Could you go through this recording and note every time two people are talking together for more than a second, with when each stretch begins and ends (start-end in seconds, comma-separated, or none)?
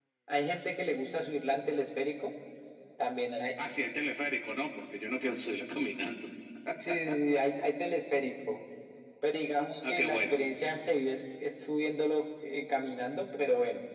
none